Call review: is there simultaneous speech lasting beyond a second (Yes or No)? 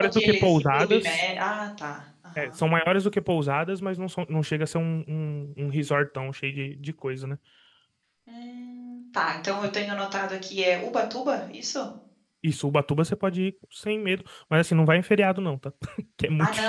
Yes